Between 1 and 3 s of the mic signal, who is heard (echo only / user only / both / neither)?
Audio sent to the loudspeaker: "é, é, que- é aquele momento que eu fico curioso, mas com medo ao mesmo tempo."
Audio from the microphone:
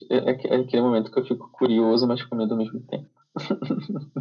echo only